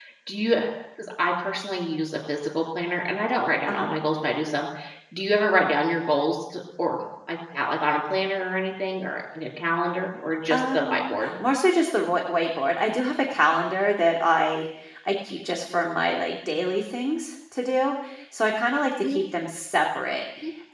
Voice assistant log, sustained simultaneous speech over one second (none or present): none